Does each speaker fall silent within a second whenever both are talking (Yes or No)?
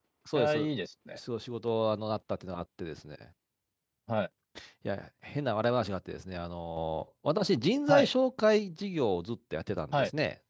Yes